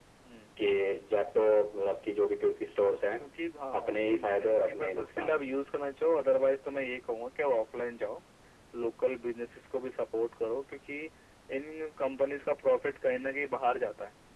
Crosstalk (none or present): present